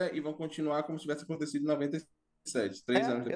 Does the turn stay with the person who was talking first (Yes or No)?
No